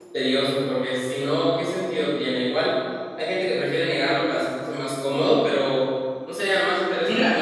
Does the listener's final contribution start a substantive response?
Yes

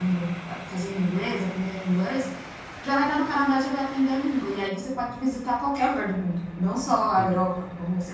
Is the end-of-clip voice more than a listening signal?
No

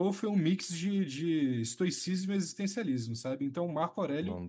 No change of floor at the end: Yes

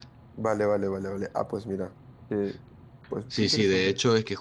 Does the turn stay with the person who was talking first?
No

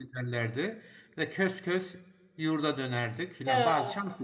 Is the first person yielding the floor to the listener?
No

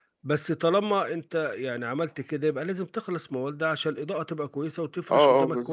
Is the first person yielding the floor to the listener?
Yes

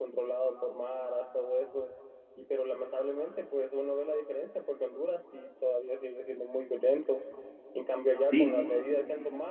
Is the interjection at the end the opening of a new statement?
No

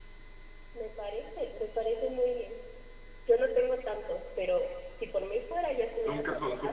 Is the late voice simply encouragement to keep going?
No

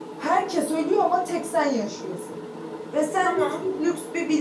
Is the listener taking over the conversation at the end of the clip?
No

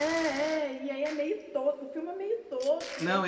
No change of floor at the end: No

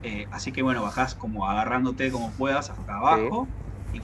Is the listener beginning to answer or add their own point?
No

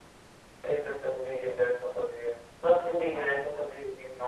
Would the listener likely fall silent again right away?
Yes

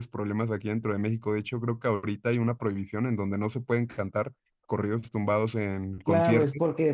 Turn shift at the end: Yes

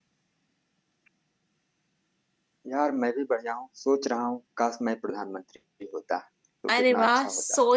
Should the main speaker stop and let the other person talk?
Yes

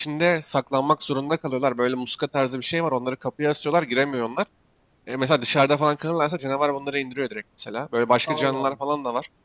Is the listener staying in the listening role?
Yes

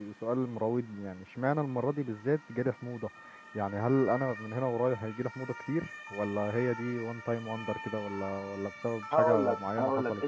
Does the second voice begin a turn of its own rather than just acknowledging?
Yes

